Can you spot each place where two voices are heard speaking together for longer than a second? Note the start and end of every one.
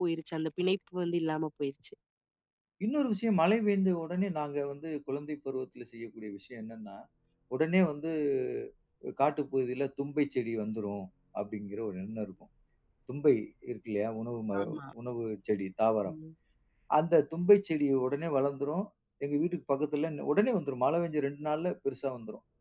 none

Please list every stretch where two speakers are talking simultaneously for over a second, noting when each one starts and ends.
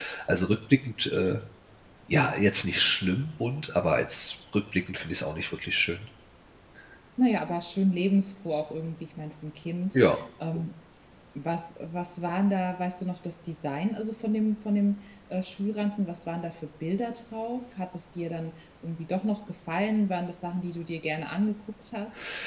none

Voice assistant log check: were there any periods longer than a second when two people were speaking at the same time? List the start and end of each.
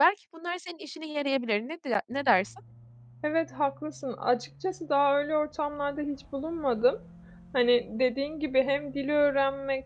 none

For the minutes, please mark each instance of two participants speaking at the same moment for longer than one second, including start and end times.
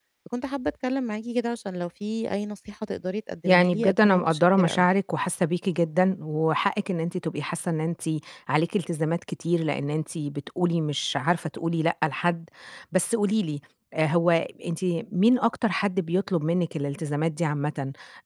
3.5-4.9

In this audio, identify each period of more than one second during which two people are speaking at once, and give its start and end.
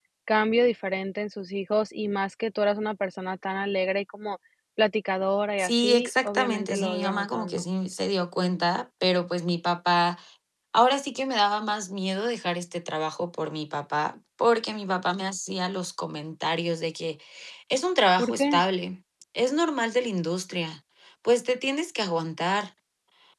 5.6-7.6

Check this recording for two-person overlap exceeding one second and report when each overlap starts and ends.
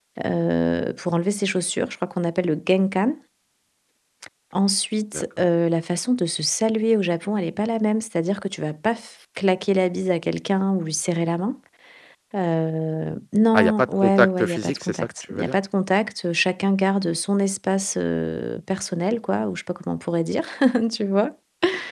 13.5-15.6

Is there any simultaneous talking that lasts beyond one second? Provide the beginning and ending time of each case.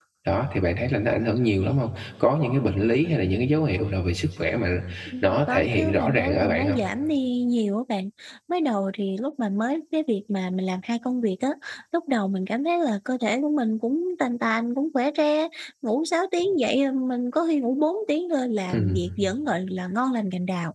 5.2-6.8

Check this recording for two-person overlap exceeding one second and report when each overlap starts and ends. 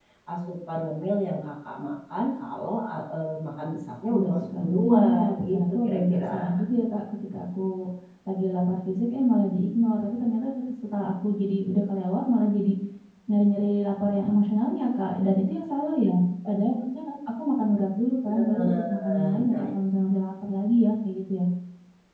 4.1-6.6, 18.3-19.7

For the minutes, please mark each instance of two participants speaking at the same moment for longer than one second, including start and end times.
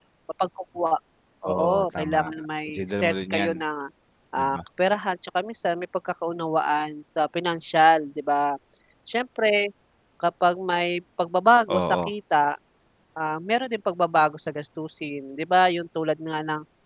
1.4-3.5

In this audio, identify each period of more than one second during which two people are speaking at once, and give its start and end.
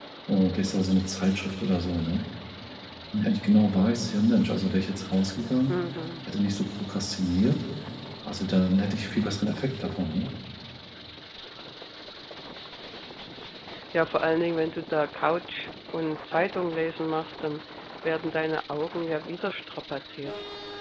none

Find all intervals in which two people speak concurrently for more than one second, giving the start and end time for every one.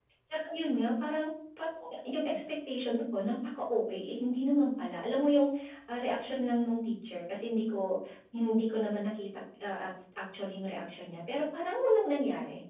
none

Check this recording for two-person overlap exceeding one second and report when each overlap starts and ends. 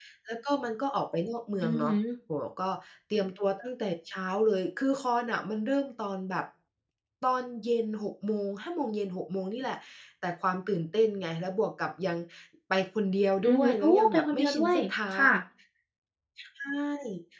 13.4-14.8

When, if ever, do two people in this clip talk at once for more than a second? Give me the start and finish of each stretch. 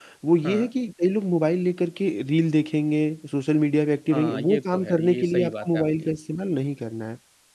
4.1-6.1

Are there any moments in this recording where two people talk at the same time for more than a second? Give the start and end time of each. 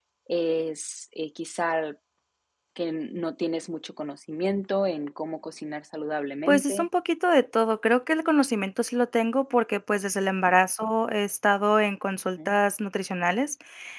none

